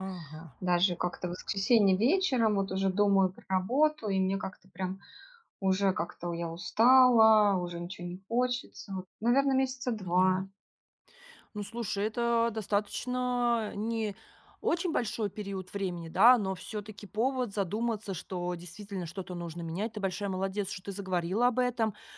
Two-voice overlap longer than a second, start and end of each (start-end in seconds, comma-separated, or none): none